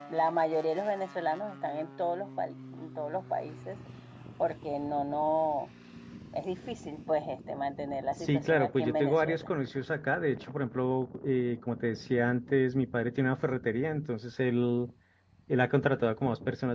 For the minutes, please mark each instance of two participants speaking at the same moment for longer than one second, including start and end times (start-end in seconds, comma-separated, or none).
8.2-9.5